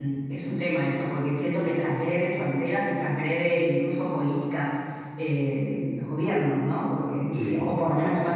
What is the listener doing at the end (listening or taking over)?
listening